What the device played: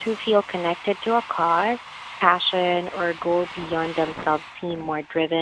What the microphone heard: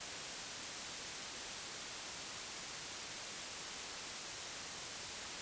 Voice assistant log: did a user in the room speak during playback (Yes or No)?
No